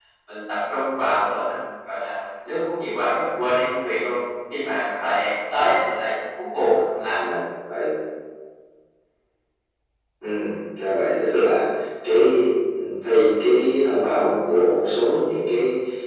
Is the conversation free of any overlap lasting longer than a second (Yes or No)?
Yes